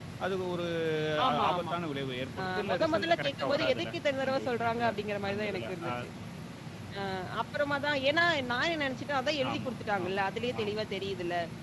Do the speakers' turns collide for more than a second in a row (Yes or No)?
Yes